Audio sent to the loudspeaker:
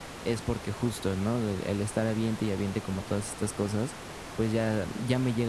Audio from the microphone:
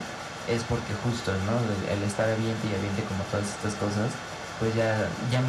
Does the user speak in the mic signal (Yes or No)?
No